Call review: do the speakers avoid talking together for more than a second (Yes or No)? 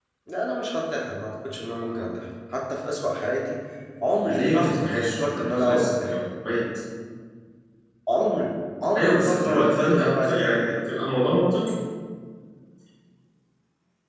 No